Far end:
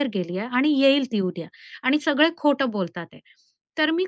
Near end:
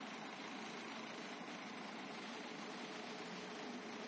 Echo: none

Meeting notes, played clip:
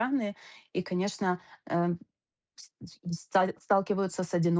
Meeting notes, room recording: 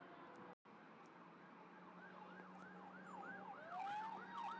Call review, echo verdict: none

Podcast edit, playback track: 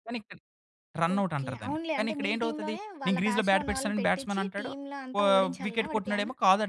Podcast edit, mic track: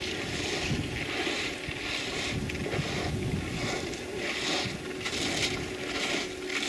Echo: none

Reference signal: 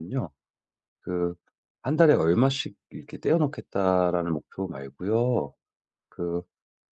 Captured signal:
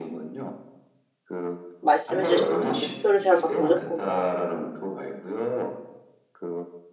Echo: present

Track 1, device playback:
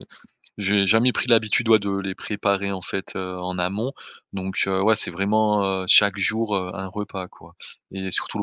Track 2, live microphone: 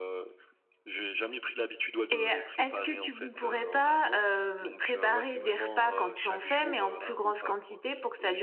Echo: present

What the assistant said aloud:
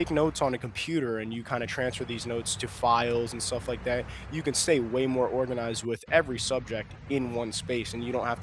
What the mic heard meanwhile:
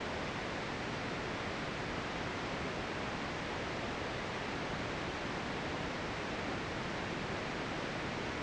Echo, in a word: none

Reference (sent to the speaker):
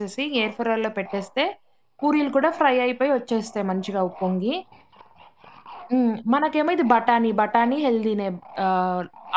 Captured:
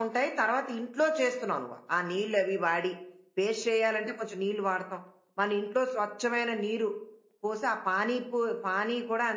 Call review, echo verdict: none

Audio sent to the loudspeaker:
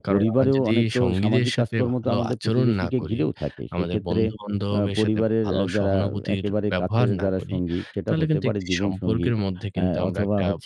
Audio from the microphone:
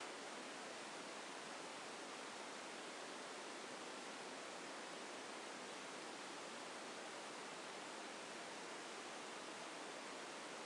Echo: none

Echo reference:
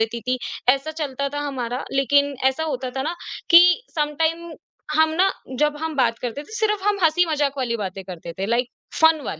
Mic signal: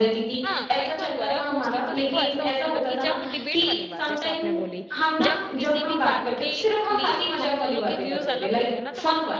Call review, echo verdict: present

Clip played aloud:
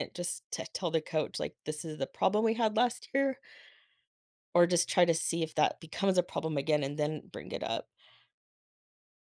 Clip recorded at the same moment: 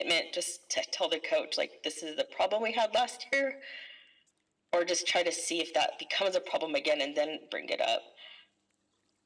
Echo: present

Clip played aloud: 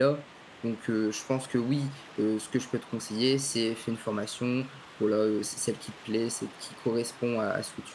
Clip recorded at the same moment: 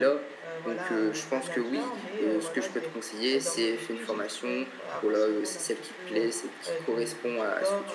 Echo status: present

